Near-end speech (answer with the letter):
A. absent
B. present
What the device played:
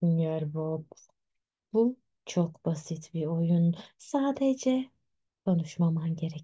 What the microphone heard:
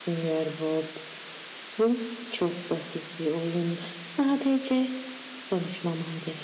A